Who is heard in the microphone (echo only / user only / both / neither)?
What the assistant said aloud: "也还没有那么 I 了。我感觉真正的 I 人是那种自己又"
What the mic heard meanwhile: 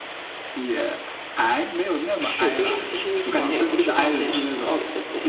both